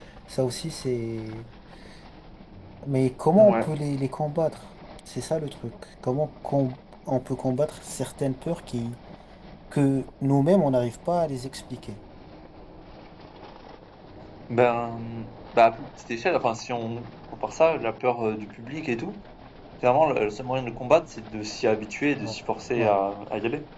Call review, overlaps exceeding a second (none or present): none